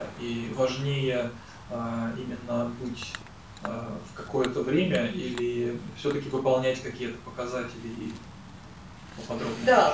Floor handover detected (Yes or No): Yes